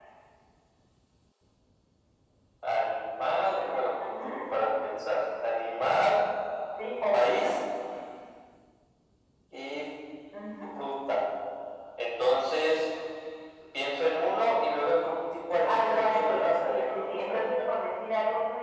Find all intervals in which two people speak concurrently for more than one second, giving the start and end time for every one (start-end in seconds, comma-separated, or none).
15.6-17.4